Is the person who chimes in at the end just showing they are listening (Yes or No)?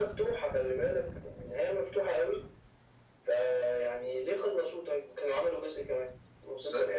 Yes